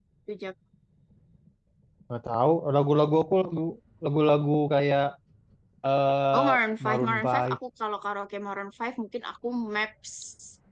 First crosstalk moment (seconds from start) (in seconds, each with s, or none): 6.3 s